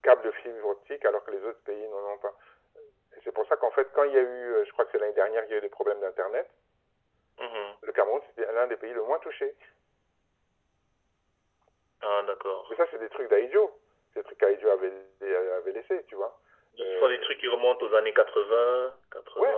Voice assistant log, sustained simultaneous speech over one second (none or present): none